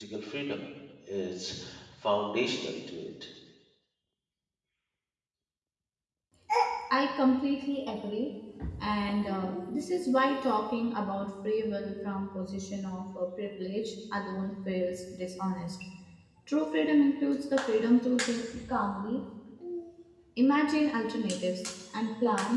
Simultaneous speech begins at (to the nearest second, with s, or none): none